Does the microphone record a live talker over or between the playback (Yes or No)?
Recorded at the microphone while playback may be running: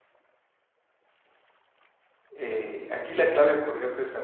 Yes